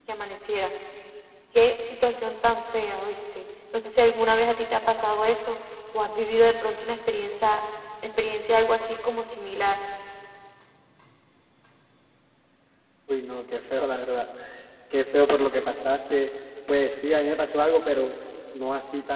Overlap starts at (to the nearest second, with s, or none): none